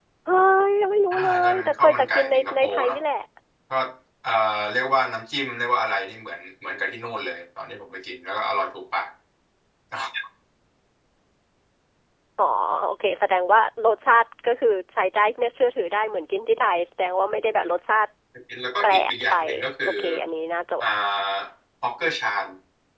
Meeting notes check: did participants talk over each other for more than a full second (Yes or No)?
Yes